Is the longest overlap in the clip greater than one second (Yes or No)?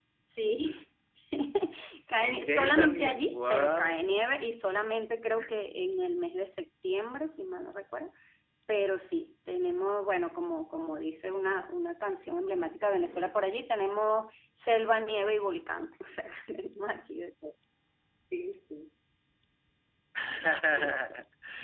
Yes